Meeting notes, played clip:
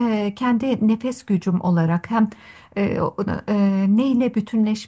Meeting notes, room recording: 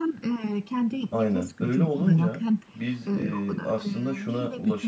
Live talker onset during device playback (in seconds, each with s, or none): 1.1 s